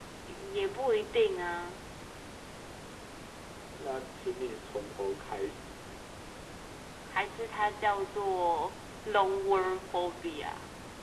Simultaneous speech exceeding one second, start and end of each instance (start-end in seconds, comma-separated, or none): none